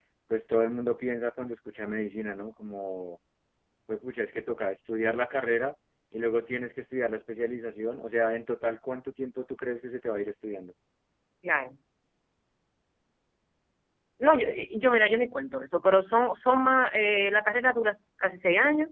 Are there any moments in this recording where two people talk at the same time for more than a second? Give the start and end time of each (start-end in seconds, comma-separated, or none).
none